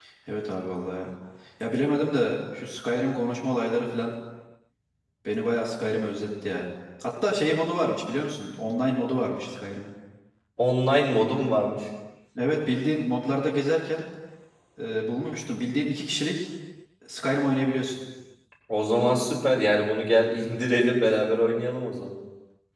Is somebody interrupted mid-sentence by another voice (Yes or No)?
No